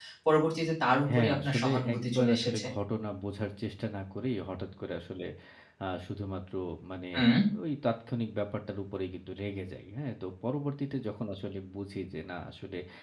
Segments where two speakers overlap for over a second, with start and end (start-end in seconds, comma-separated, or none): 1.1-2.7